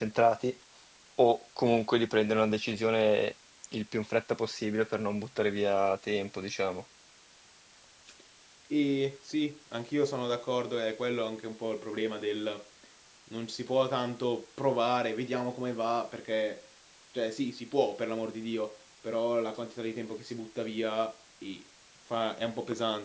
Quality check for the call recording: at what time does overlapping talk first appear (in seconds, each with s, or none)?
none